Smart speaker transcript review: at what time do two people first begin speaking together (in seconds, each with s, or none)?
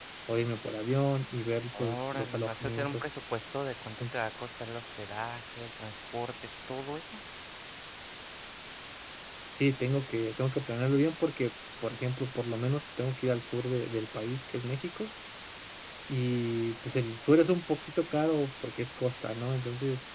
1.7 s